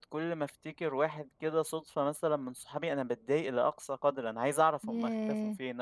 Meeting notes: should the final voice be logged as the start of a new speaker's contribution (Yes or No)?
No